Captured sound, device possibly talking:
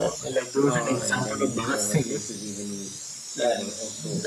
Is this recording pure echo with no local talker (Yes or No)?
No